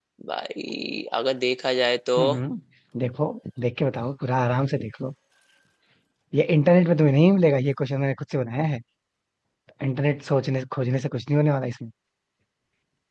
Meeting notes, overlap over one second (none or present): none